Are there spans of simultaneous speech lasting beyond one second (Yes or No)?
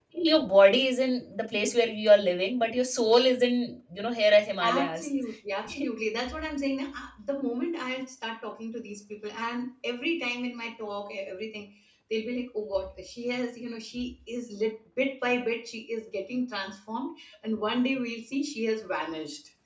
No